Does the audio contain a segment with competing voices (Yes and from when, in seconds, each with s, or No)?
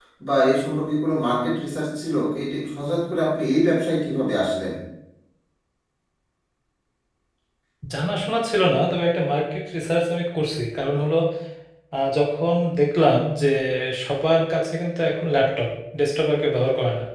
No